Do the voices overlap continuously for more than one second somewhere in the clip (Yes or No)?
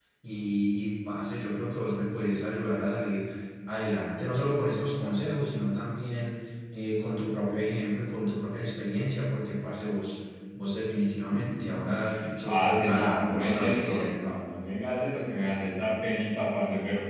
Yes